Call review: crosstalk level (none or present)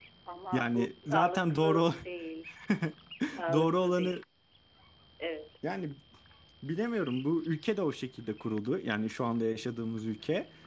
present